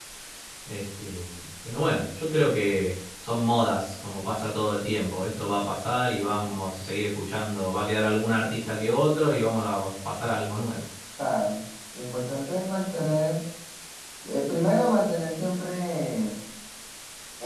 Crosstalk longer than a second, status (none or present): none